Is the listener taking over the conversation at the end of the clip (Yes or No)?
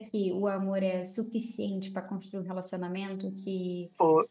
No